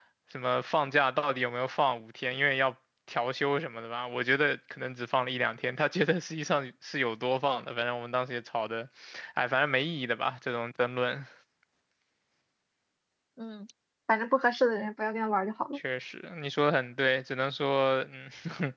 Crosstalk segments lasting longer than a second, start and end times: none

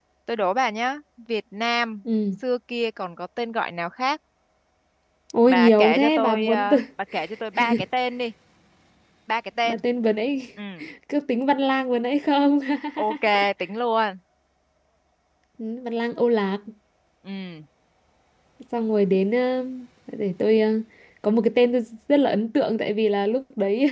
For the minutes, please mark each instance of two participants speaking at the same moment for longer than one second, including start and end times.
5.5-6.8

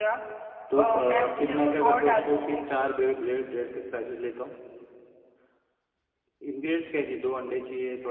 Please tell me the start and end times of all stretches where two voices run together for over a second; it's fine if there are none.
0.8-2.6

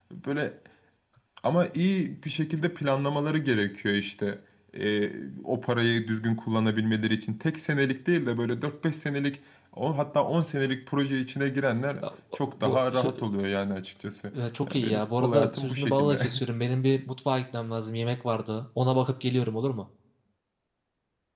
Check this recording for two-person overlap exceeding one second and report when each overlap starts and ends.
14.7-16.3

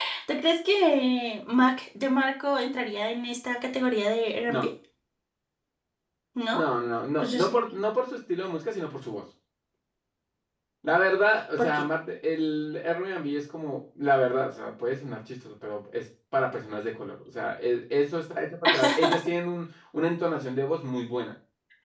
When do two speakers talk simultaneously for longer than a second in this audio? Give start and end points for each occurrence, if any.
none

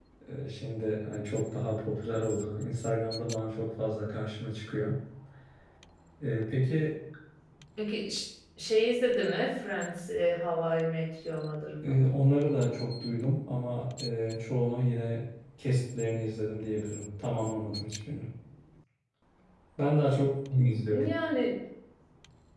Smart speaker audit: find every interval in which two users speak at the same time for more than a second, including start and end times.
none

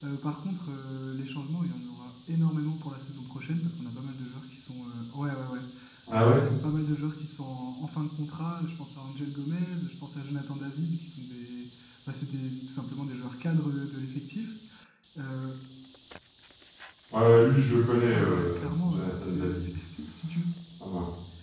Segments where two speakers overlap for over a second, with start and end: 18.1-19.6

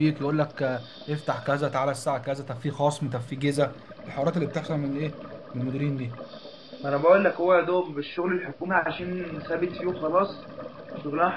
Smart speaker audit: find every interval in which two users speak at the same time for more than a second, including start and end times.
none

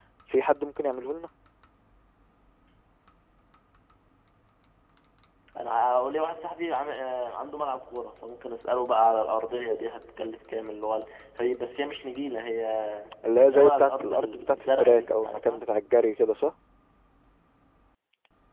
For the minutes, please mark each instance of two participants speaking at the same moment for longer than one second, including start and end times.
13.4-15.6

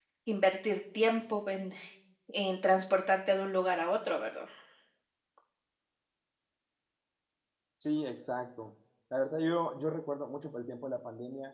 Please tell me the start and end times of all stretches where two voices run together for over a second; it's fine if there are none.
none

